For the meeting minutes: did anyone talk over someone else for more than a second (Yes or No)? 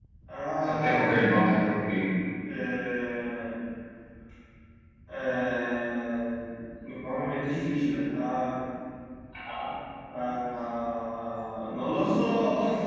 No